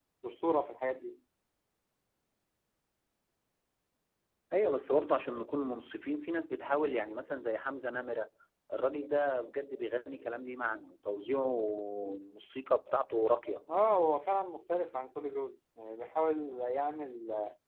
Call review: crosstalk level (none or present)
none